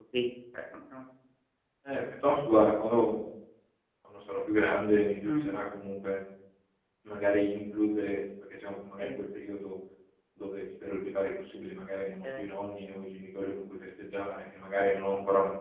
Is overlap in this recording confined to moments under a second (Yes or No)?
Yes